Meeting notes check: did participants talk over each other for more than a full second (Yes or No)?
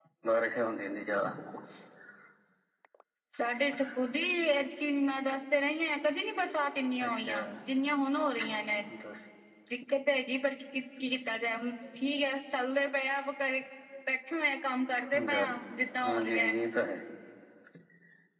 No